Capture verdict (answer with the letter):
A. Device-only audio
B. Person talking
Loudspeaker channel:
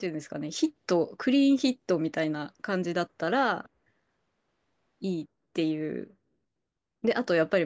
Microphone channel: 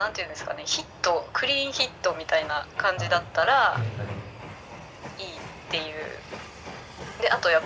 B